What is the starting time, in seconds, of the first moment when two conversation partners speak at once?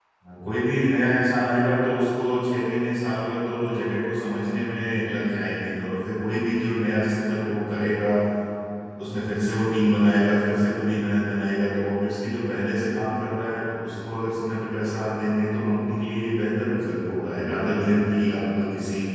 none

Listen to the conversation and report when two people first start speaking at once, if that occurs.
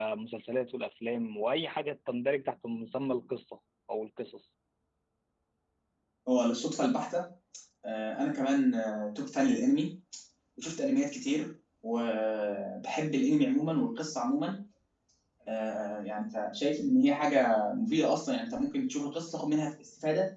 none

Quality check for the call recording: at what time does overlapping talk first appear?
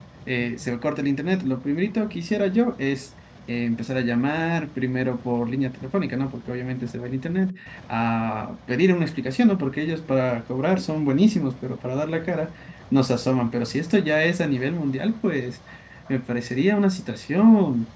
none

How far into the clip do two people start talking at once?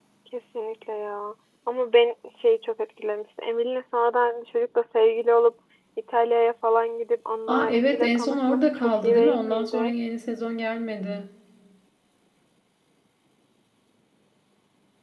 7.5 s

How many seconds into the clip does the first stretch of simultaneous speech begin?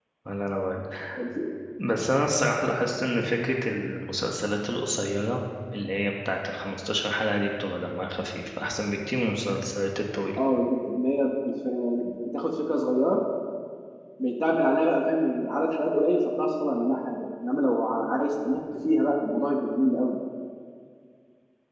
none

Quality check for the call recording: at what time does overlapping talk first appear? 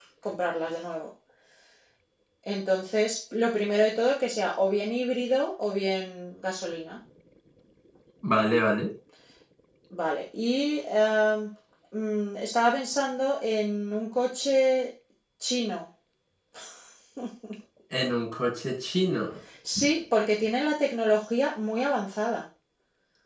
none

